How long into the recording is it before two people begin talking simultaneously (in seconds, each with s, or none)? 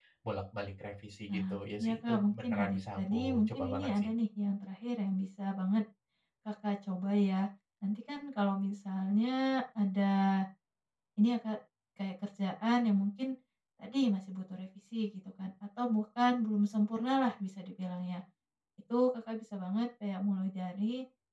1.3 s